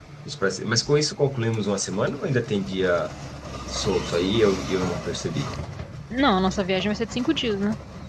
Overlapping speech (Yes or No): No